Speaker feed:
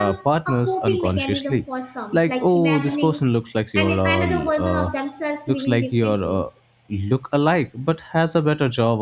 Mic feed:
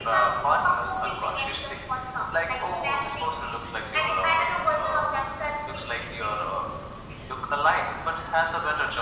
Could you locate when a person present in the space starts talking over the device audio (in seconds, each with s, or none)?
none